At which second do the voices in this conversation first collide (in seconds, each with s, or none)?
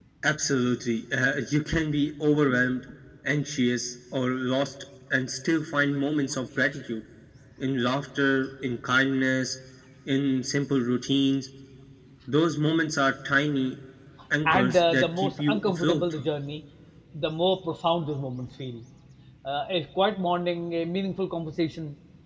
14.4 s